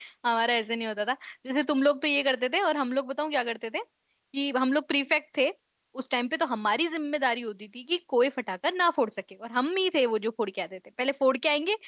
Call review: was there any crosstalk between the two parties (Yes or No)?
No